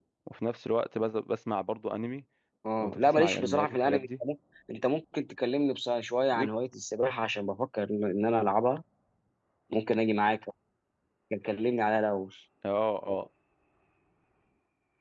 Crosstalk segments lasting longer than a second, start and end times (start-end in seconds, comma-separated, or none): 2.8-4.1